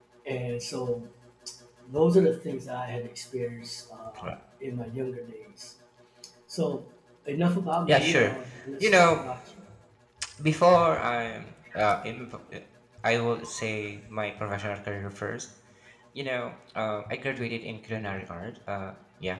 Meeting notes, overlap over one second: none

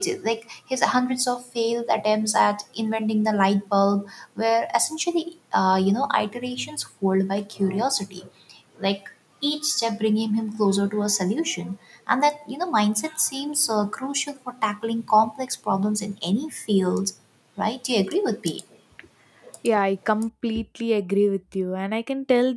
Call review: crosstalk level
none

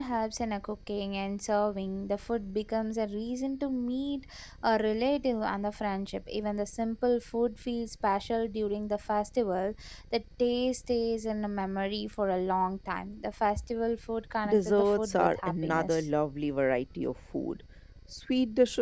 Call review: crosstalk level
present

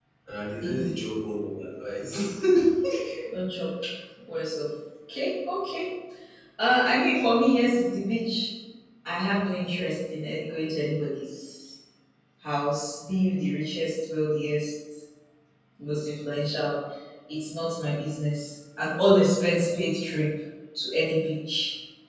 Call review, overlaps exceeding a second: none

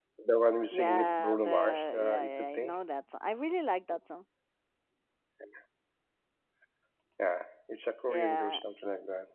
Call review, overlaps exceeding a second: present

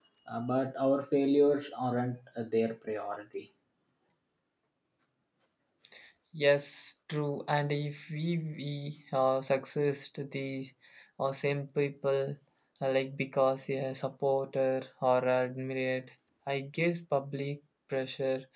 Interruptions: none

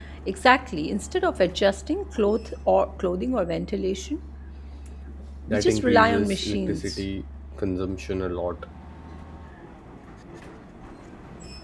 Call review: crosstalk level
present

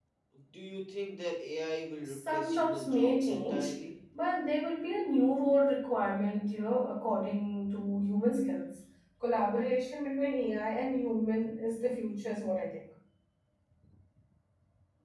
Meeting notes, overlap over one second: present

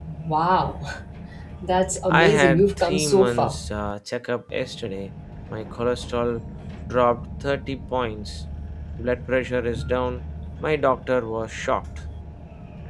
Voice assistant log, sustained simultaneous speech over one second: present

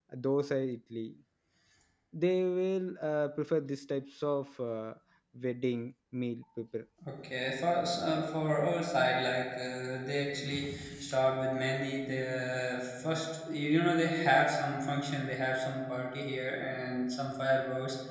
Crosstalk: none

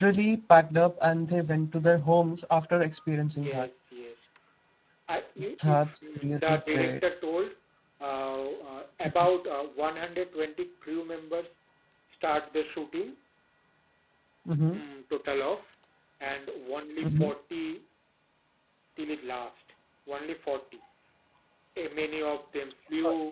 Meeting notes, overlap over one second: present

